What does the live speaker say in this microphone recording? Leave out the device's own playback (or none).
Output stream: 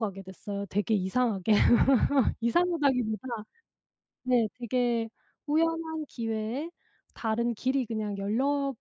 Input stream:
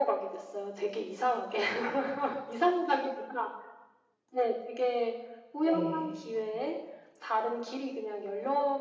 네.